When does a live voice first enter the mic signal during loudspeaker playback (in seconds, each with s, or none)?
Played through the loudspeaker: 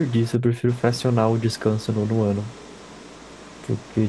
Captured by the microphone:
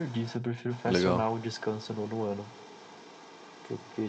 0.8 s